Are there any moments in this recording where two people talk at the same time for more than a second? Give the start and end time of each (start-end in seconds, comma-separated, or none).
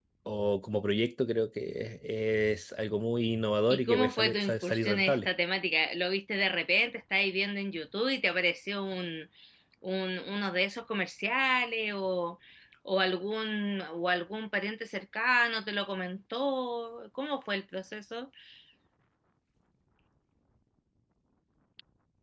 3.7-5.3